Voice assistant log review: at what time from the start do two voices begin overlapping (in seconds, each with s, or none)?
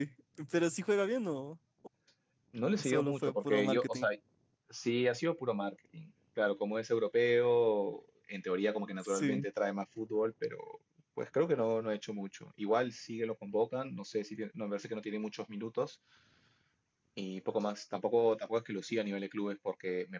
2.8 s